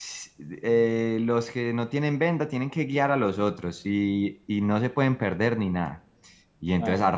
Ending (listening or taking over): listening